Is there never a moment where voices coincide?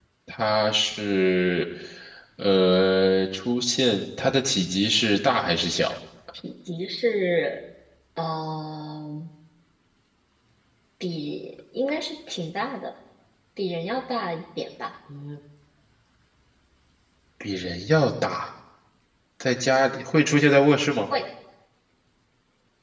Yes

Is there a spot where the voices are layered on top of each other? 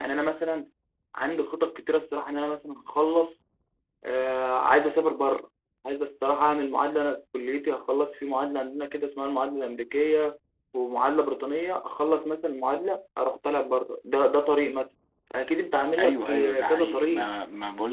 Yes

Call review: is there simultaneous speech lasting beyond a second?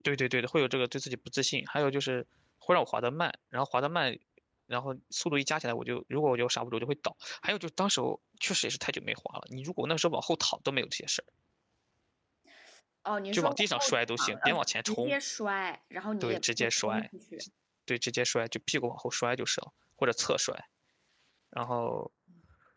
Yes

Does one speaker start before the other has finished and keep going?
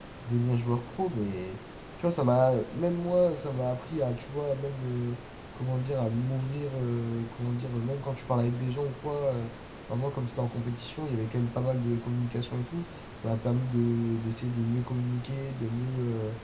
No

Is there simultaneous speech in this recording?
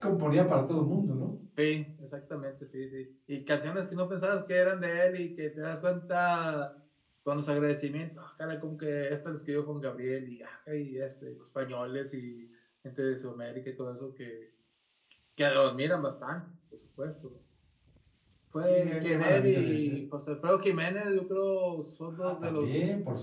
Yes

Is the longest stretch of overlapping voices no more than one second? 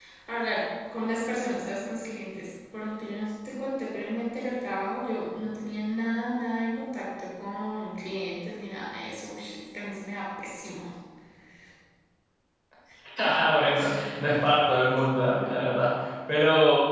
Yes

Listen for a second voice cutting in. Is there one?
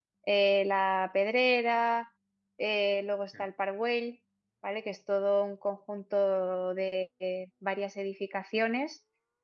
No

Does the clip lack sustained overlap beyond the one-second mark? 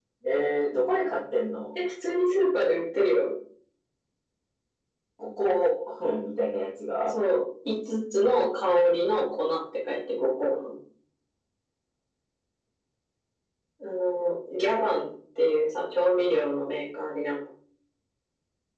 Yes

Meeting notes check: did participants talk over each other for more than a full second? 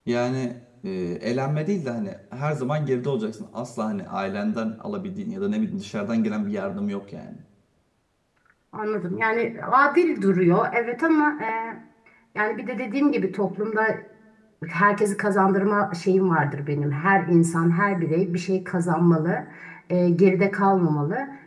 No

